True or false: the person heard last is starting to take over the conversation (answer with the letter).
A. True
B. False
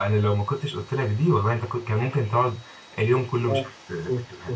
A